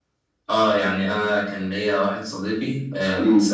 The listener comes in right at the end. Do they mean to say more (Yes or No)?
No